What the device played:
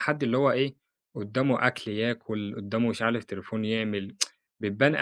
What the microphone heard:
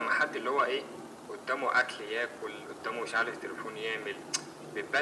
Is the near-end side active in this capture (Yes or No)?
No